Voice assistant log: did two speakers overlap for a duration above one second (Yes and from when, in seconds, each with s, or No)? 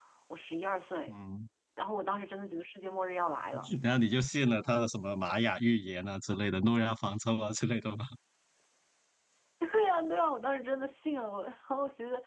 No